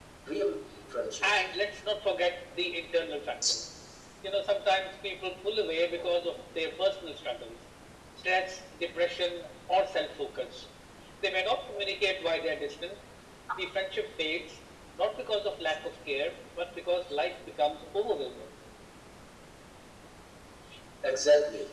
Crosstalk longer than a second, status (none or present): none